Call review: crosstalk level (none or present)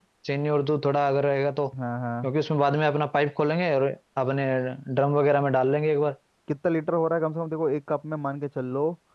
none